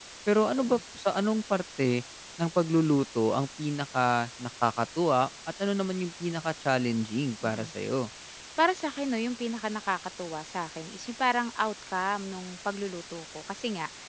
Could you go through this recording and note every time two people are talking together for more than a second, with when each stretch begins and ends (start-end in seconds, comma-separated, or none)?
none